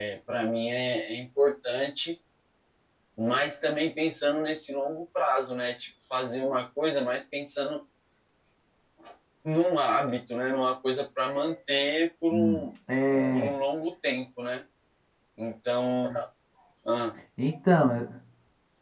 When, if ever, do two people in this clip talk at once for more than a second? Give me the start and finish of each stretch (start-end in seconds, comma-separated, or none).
none